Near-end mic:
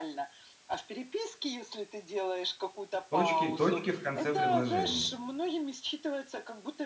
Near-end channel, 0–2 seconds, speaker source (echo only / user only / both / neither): echo only